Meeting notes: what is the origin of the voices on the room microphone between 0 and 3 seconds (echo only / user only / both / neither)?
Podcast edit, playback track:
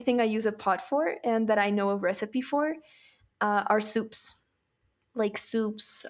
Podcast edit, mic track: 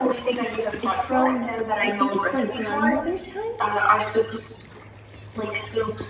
both